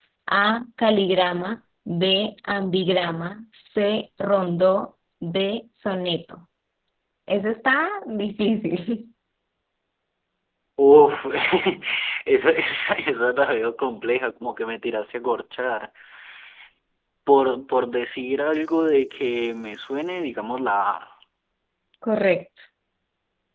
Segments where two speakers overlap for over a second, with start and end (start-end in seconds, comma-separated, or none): none